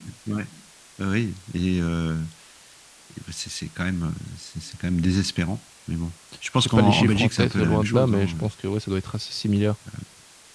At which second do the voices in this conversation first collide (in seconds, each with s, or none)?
6.6 s